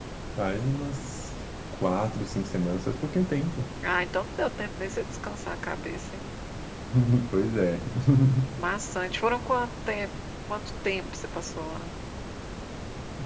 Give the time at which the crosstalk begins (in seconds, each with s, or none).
none